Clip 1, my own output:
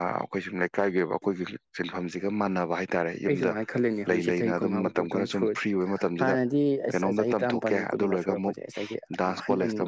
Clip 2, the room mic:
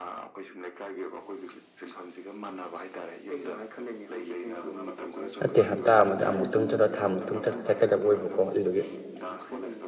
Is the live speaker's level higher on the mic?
Yes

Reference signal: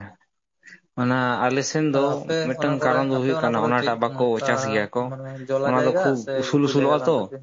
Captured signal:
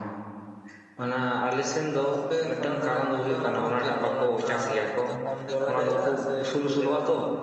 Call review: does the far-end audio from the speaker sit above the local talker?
Yes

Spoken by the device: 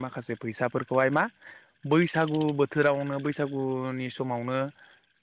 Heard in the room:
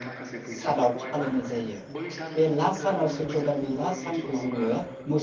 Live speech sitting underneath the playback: No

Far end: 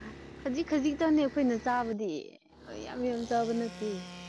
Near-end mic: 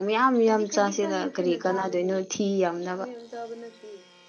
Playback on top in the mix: No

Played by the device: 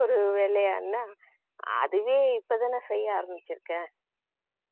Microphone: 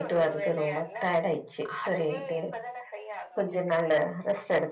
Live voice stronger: Yes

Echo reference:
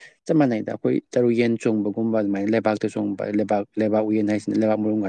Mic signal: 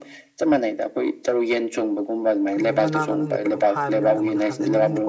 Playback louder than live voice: Yes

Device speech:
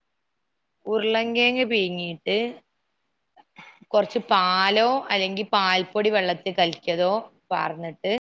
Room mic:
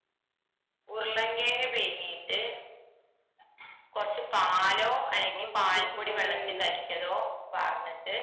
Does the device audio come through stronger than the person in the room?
Yes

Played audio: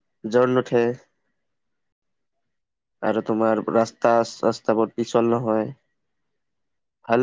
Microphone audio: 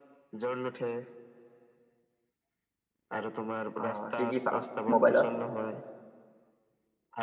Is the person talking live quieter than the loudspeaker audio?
No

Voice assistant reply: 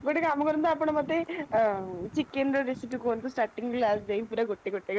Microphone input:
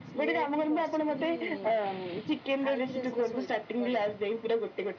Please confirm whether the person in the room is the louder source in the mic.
No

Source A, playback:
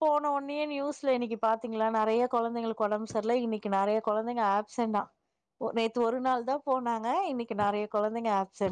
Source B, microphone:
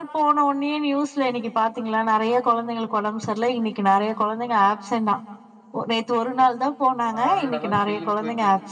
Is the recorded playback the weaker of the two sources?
No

